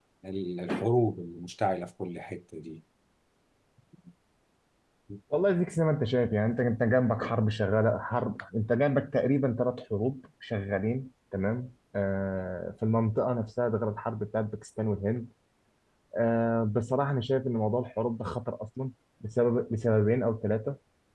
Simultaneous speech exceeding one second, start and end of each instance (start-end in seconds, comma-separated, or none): none